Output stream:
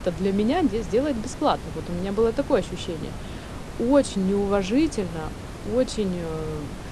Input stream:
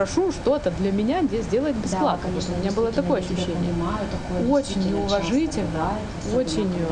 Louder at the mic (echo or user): echo